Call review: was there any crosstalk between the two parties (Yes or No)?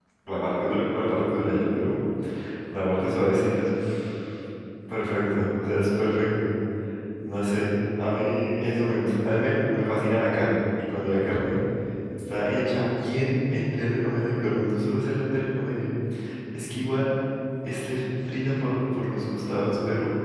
No